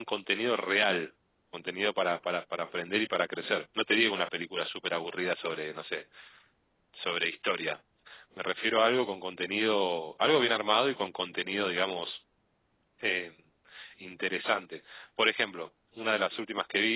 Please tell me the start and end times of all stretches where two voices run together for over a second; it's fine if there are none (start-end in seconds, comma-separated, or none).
none